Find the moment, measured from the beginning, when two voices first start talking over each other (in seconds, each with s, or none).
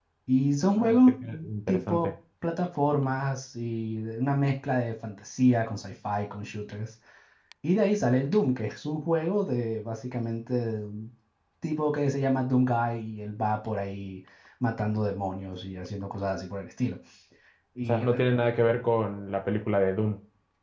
0.8 s